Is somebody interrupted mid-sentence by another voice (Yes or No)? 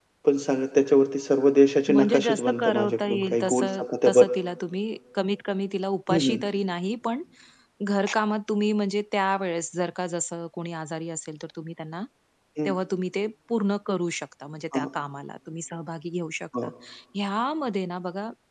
Yes